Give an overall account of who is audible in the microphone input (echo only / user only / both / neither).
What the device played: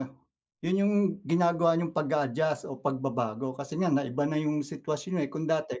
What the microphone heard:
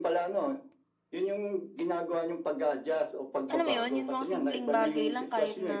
both